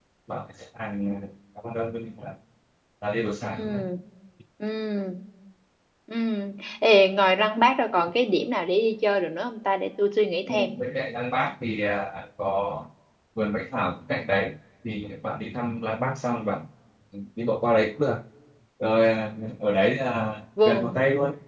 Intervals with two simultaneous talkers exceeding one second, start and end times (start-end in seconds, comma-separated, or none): none